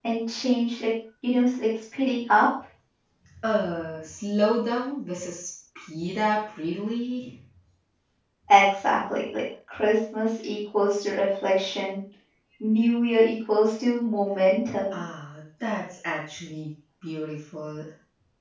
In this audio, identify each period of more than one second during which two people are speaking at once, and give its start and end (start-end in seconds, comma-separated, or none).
none